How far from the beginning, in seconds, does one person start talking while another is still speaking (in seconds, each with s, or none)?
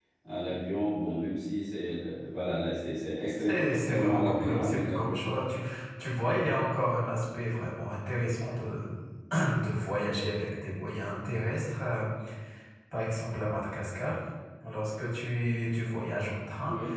3.4 s